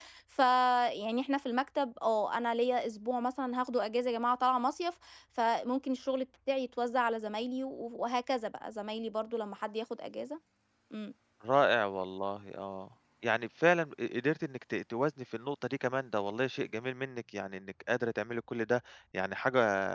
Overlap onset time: none

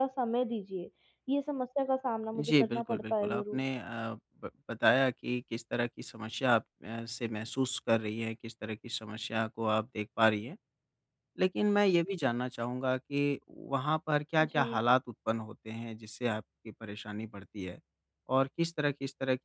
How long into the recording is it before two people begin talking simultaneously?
2.4 s

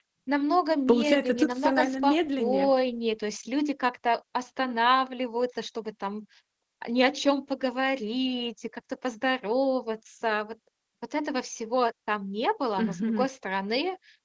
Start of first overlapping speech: 0.9 s

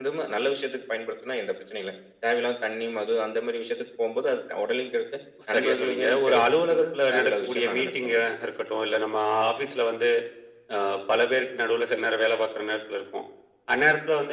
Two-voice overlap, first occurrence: 5.5 s

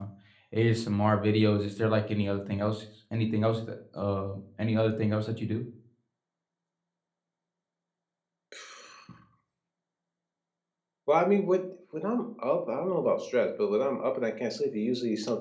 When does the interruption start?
none

